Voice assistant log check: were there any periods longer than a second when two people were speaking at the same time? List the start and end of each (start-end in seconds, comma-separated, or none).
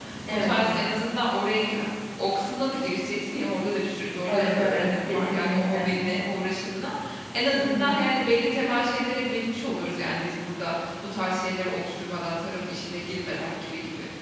4.2-5.9